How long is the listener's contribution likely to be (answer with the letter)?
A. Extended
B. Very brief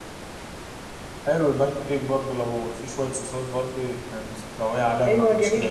A